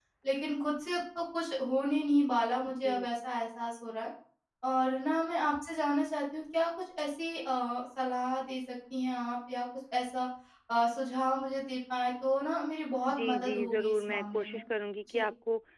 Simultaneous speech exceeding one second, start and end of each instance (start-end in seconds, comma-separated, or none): 13.1-14.6